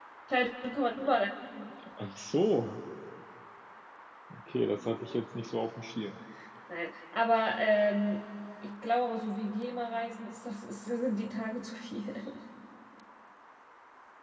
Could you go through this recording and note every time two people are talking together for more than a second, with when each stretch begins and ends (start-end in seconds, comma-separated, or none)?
none